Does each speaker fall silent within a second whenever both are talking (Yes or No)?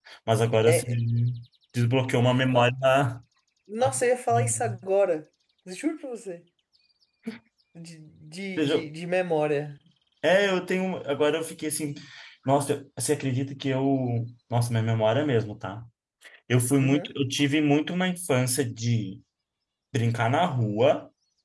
Yes